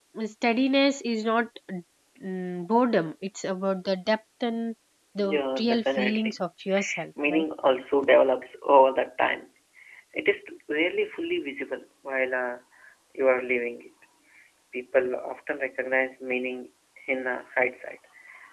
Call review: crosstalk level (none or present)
present